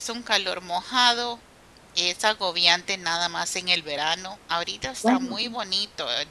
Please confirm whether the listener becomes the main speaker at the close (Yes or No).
No